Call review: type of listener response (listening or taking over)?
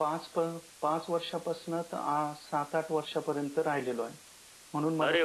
taking over